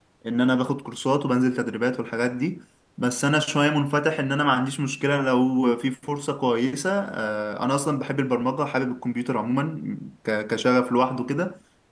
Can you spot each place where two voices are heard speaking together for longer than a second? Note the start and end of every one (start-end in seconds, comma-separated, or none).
none